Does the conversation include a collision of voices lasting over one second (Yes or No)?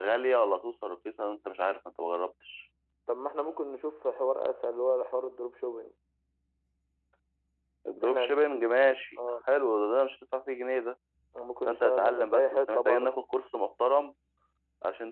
Yes